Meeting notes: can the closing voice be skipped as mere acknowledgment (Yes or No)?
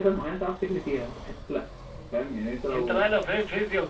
No